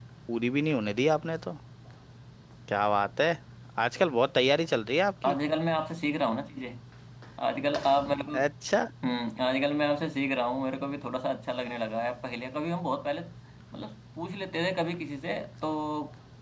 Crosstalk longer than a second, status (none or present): none